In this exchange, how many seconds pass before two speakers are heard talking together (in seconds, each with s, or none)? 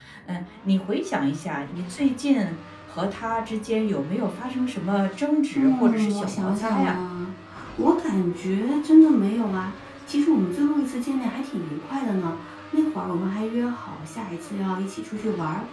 5.5 s